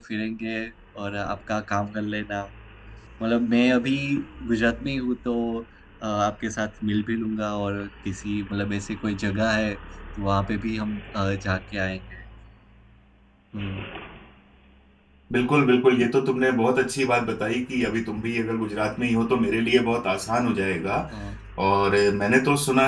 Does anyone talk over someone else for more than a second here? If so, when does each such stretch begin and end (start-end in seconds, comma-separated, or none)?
none